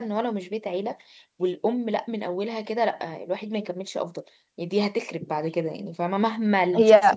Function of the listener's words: listening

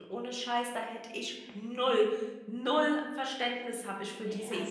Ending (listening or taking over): taking over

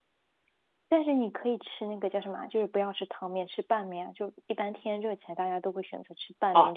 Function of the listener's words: taking over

